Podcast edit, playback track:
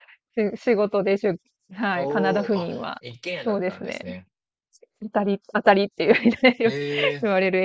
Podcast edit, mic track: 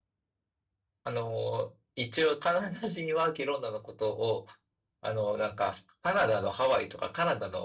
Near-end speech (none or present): present